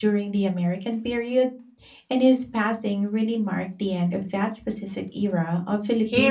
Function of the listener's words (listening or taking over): taking over